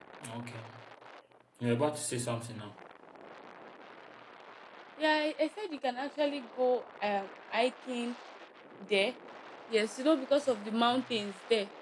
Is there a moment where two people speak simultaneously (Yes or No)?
No